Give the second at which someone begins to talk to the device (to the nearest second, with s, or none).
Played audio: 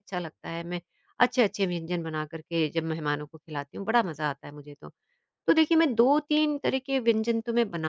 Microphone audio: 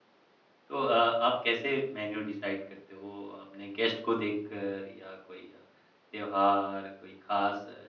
1 s